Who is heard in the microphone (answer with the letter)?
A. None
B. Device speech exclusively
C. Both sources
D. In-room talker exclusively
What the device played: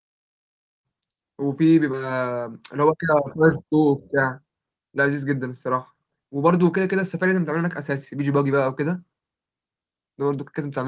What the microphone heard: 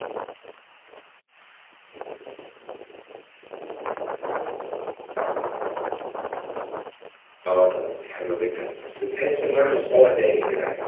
D